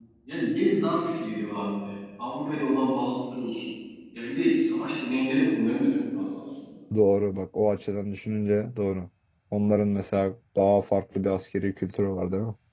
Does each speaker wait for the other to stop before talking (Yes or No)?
Yes